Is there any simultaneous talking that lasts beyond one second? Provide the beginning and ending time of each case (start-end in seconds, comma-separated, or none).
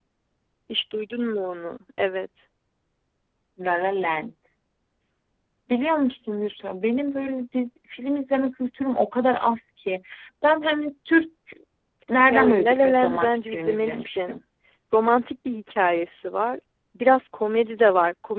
12.3-14.3